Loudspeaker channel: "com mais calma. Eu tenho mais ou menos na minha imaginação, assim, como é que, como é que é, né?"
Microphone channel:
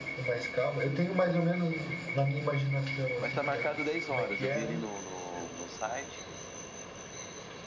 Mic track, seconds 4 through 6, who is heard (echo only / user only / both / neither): both